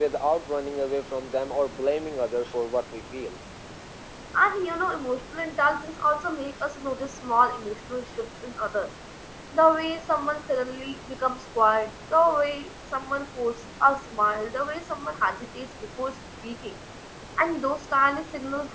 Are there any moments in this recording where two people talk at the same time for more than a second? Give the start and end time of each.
none

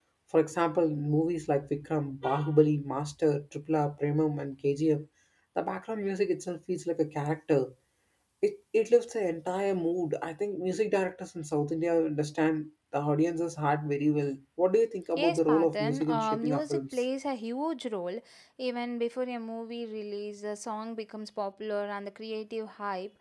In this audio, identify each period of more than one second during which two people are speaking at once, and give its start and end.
15.2-17.0

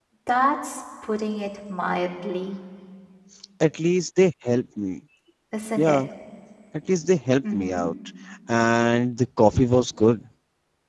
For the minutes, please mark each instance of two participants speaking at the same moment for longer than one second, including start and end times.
none

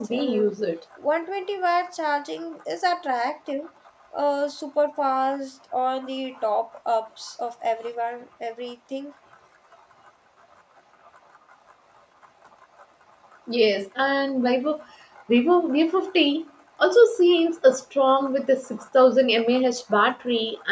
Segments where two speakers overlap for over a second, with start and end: none

